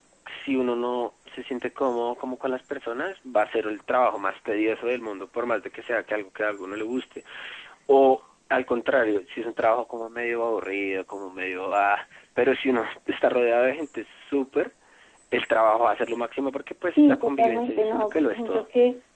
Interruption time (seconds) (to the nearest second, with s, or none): 17 s